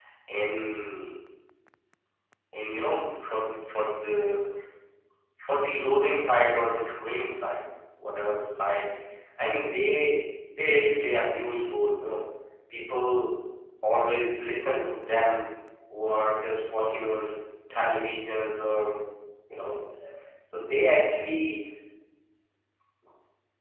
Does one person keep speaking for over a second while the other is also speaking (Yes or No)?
No